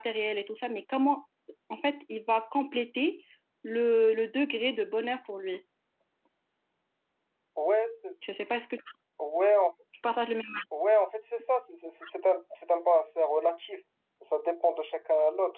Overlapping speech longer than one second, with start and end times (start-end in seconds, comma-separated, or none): none